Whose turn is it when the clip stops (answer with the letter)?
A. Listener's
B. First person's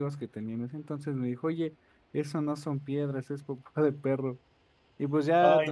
B